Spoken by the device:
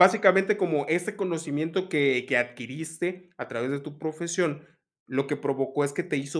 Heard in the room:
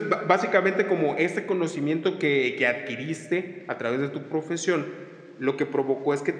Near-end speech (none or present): none